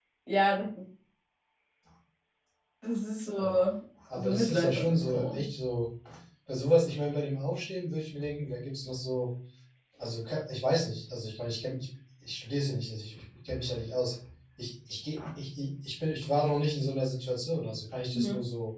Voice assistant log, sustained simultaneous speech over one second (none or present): present